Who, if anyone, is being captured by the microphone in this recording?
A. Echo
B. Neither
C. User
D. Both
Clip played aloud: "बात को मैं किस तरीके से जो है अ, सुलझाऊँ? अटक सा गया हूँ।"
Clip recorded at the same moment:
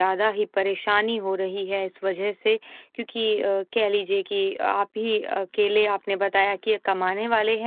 C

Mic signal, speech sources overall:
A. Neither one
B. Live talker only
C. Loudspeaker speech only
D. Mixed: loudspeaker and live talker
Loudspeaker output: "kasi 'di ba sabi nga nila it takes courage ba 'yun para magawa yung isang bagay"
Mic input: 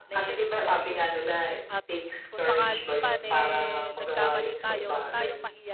D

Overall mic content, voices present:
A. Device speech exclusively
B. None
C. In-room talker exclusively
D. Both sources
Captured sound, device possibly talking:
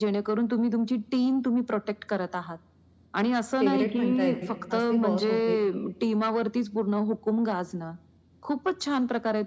D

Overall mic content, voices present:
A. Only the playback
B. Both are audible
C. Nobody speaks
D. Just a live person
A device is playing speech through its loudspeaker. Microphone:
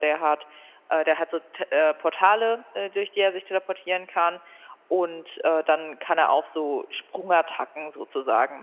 A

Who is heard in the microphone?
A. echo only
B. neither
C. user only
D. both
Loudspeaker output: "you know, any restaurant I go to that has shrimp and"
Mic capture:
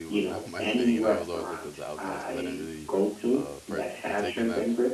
D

